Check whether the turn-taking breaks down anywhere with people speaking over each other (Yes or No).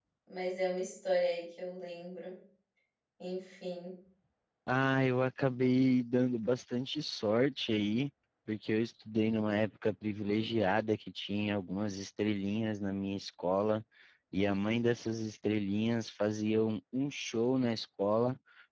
No